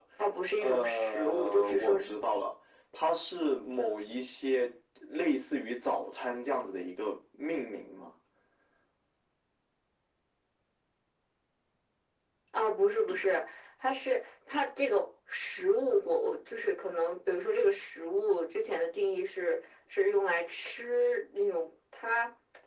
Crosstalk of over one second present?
Yes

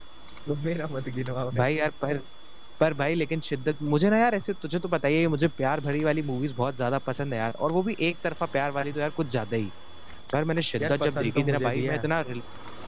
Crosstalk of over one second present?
Yes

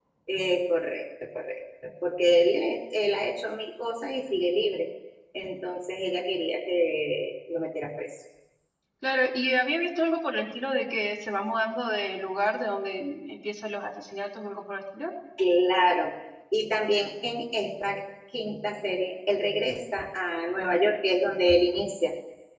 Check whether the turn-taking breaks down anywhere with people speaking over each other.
No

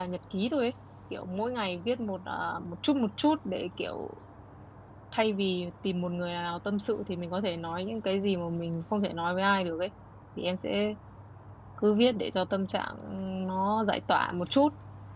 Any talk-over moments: No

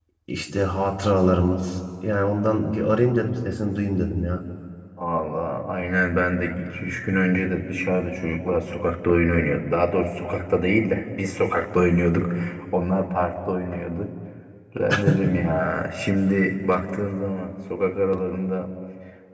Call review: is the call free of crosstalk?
Yes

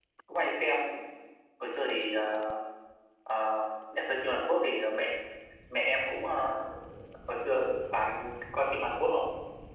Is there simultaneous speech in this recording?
No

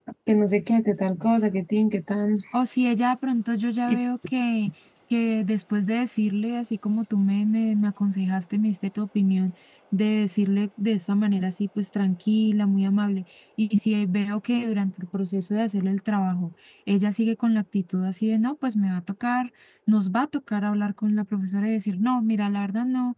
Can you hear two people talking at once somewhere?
No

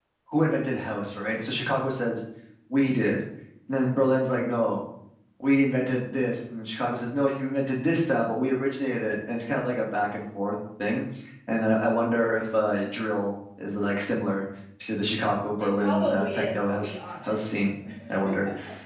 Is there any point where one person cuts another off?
Yes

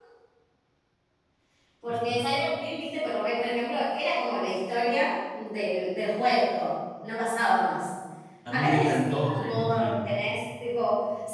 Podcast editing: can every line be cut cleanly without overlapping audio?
No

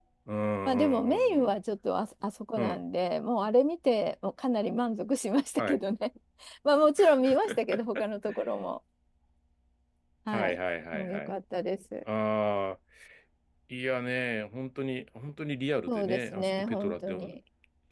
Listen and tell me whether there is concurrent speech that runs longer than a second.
Yes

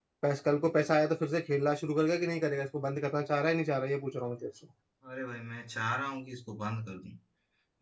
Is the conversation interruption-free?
Yes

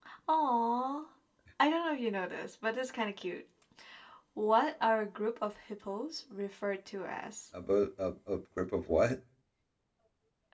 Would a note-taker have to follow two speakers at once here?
No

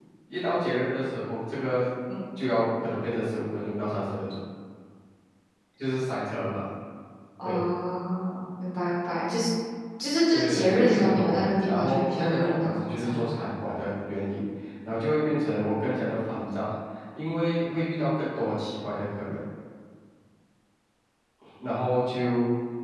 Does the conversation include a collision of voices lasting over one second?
Yes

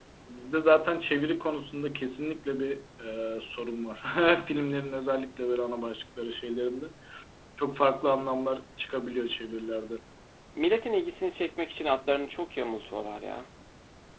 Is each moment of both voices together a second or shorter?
Yes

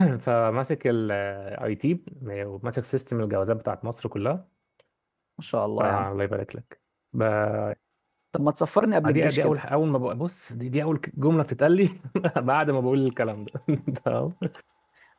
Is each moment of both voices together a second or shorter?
Yes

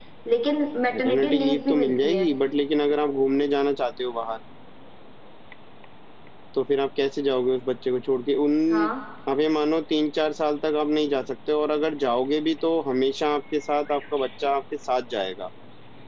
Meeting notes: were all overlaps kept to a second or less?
No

